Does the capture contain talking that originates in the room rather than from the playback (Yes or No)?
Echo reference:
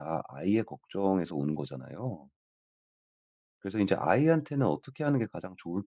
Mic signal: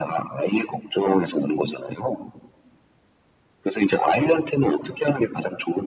No